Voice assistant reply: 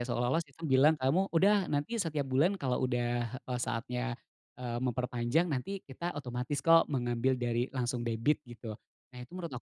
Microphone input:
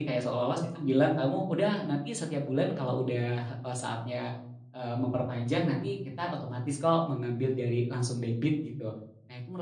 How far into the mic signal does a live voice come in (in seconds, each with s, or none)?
none